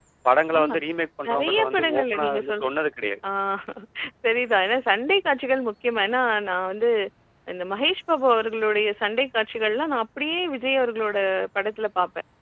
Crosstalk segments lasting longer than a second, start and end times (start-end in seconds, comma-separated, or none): 1.3-2.7